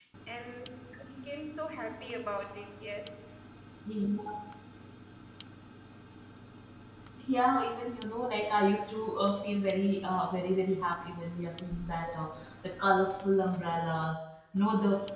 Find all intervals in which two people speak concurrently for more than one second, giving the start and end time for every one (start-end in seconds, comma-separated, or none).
none